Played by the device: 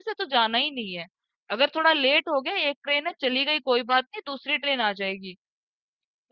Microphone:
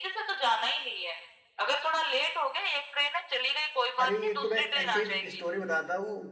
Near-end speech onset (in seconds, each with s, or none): 4.0 s